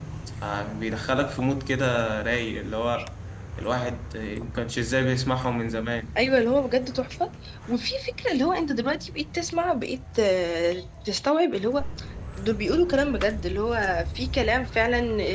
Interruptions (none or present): none